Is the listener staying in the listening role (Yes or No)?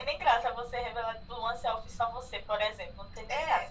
No